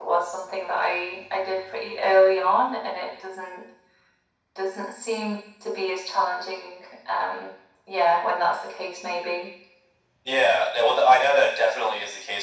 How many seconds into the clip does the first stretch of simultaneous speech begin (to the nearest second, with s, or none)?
none